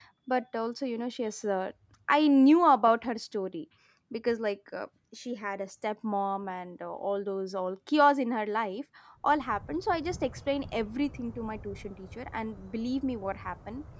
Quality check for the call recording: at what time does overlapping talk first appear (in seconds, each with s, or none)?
none